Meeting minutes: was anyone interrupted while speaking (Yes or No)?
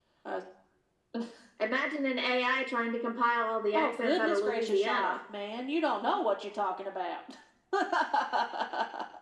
Yes